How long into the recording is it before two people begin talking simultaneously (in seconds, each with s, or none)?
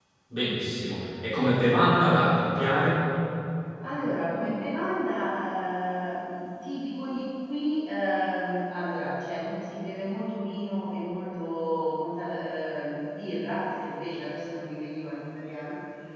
none